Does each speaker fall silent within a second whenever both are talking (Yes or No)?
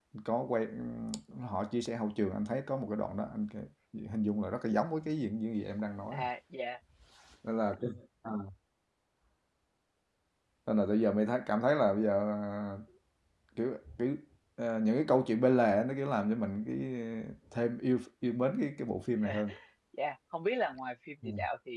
Yes